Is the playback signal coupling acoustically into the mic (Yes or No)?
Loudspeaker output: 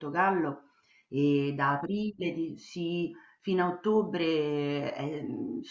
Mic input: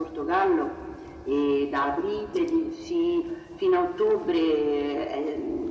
Yes